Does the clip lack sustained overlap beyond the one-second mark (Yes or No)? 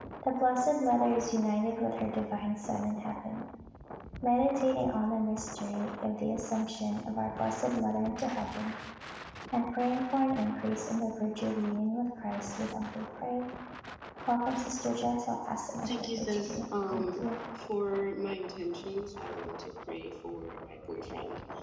No